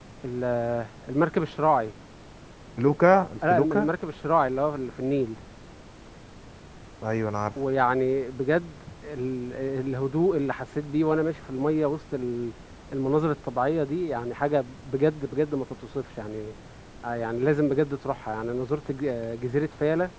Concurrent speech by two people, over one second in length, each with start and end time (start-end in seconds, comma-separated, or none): none